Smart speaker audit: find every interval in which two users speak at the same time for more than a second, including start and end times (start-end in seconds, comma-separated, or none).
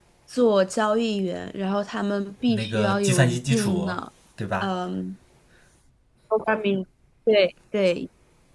2.5-3.9